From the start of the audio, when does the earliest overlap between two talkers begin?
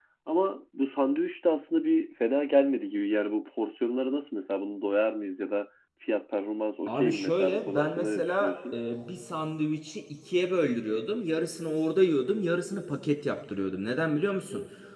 6.9 s

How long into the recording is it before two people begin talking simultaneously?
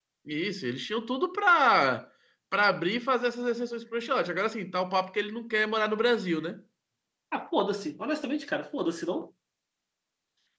none

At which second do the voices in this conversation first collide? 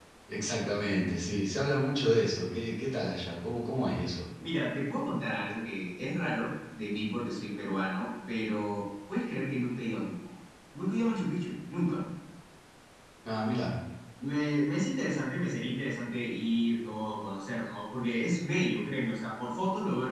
none

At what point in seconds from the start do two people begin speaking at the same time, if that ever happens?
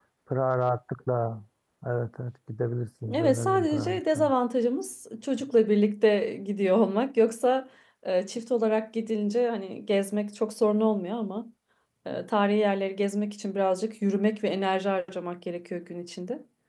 3.1 s

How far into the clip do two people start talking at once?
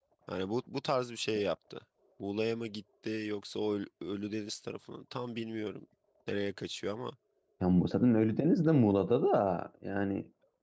none

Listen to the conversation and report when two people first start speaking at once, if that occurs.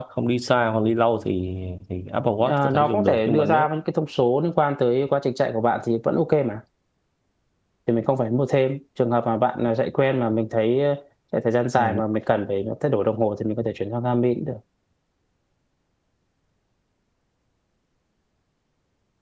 2.4 s

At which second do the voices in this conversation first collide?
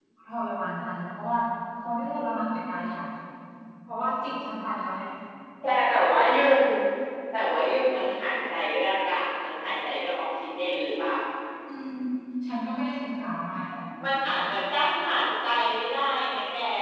none

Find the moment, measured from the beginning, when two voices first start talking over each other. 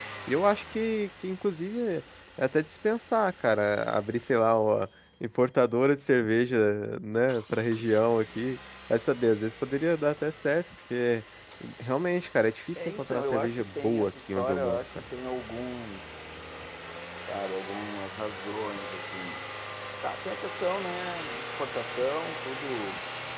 12.8 s

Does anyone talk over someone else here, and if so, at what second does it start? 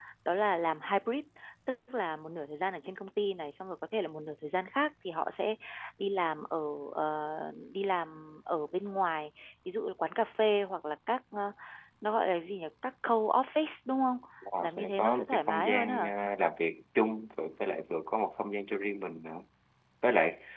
14.5 s

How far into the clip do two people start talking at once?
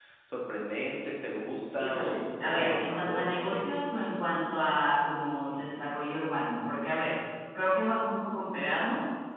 1.8 s

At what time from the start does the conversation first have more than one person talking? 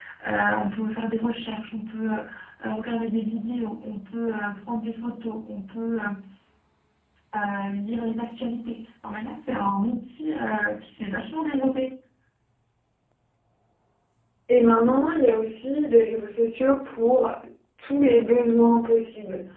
none

